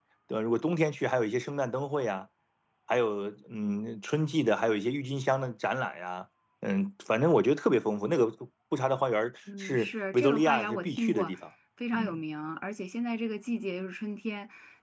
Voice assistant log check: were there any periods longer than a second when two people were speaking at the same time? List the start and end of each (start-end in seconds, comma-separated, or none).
9.6-11.3